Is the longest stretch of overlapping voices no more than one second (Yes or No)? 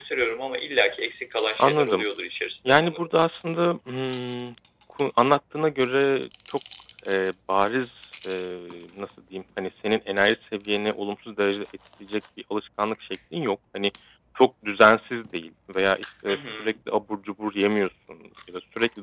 Yes